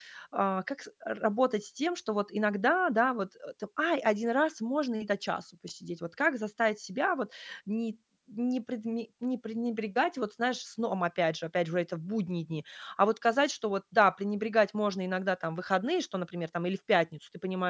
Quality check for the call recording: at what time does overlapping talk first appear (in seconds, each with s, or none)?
none